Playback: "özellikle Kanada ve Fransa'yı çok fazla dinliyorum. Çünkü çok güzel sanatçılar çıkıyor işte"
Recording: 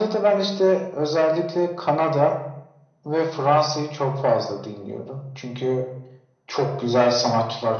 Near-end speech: none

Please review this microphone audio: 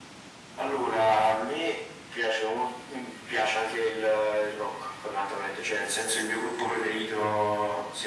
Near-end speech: none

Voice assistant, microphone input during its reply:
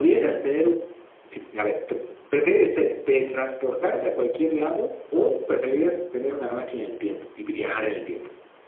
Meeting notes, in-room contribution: none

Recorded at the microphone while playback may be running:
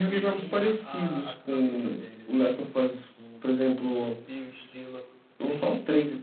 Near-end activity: present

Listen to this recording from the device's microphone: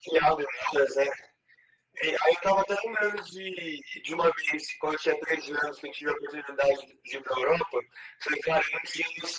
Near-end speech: none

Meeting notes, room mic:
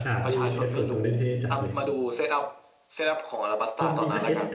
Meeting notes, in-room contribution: present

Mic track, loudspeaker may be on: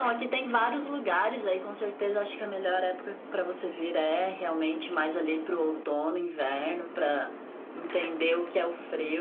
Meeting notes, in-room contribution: none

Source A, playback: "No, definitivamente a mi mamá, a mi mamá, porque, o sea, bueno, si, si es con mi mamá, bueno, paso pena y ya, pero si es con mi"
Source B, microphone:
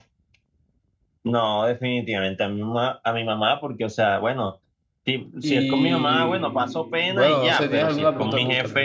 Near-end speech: present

